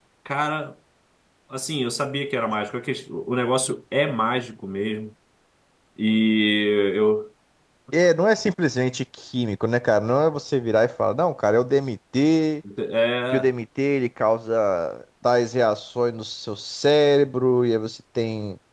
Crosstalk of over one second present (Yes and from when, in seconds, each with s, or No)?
No